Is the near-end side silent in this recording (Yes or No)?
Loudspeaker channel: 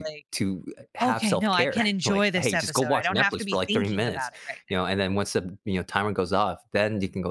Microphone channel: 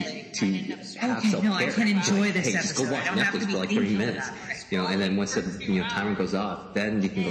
No